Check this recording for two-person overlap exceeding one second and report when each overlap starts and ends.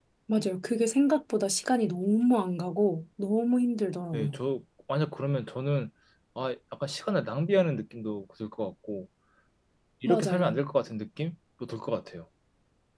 none

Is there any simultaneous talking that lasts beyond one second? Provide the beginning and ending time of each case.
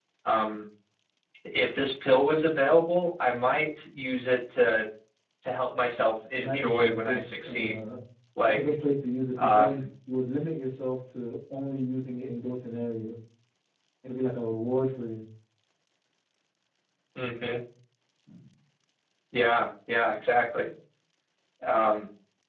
6.4-7.7

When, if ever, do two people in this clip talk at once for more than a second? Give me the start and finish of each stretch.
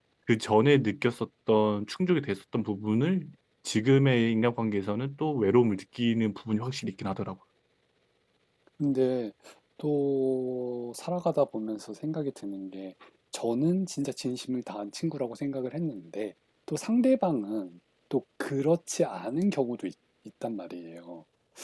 none

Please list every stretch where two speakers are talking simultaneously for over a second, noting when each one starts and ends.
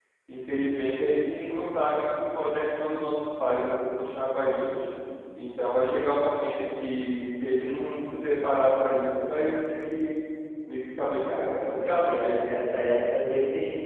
11.2-12.6

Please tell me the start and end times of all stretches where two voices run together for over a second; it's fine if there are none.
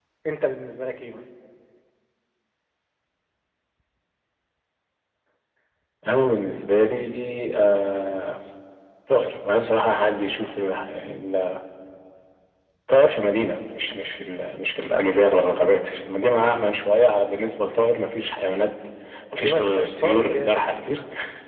19.3-20.6

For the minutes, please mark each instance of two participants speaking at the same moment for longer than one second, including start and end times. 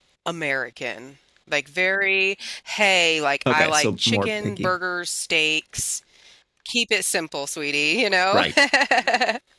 3.5-4.7

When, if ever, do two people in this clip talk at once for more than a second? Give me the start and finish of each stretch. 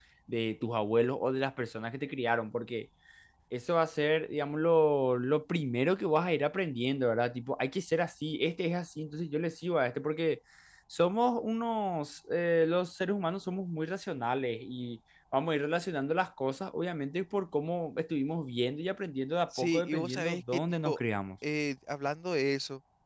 19.6-21.0

